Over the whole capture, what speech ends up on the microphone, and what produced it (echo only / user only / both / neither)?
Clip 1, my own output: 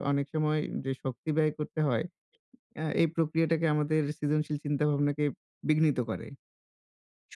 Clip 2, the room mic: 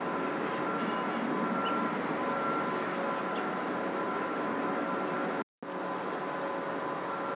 neither